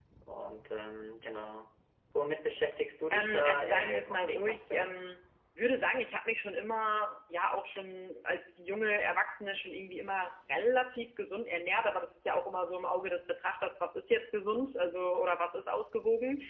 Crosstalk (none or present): present